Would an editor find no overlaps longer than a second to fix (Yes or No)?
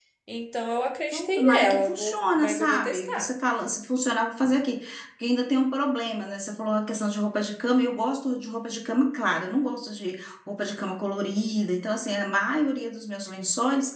No